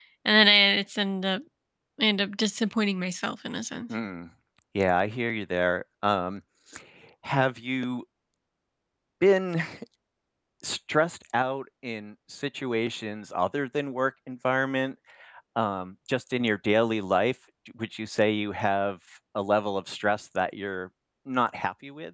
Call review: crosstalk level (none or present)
none